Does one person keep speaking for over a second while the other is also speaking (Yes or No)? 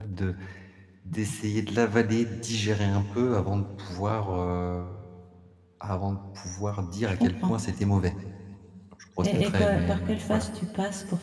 Yes